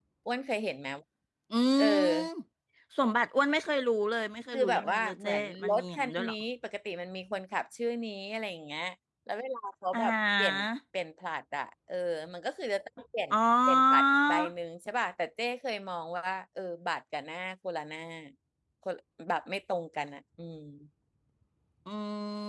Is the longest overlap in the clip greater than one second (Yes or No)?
Yes